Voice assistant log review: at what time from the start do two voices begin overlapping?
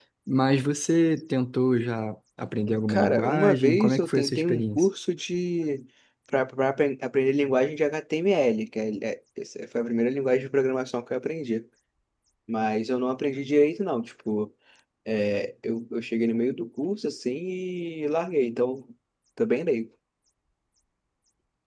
2.7 s

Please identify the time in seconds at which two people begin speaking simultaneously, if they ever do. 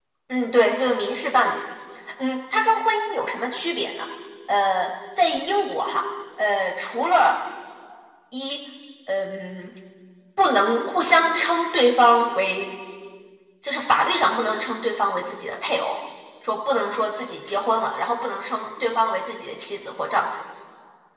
none

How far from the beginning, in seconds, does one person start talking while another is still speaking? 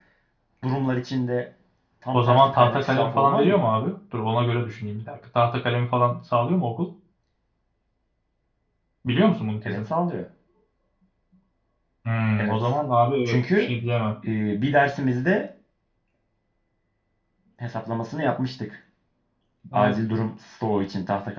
2.1 s

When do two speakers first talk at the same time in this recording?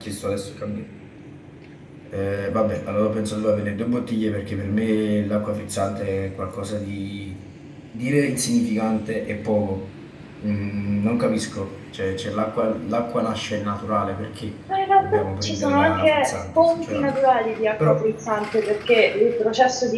15.0 s

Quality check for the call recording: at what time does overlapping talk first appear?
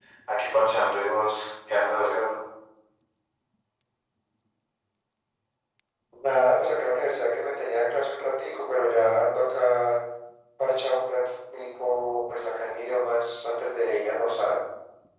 none

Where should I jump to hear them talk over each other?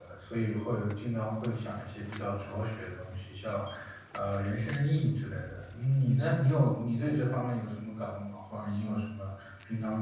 none

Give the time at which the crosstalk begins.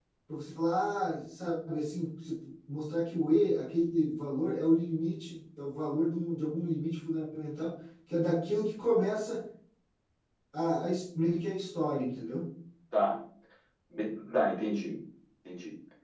none

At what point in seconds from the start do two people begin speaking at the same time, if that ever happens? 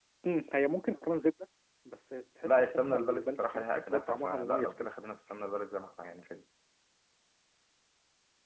2.4 s

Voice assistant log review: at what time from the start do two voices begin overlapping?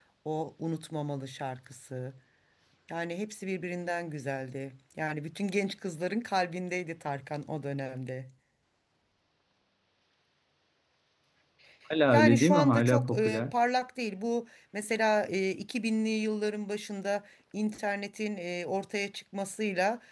12.1 s

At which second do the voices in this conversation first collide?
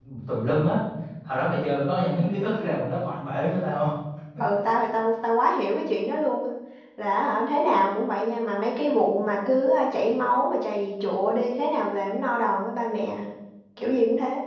none

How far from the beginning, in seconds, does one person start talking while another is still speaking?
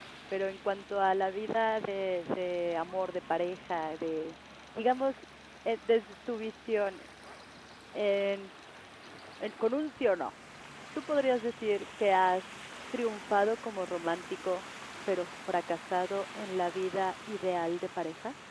none

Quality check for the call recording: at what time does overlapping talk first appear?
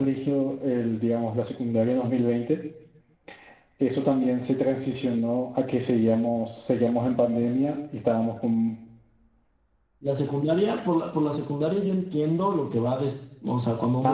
none

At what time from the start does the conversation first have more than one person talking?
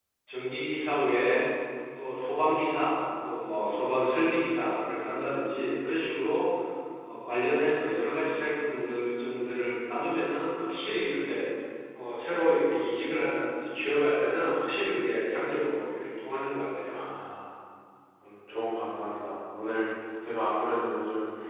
none

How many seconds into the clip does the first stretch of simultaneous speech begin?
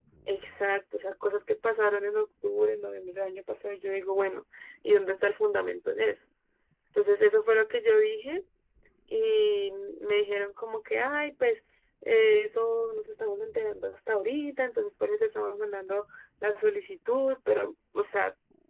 none

